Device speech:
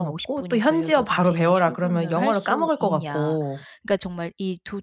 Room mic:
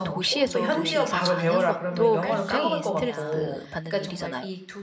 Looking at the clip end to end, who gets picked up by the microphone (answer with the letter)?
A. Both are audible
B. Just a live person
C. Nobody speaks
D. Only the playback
A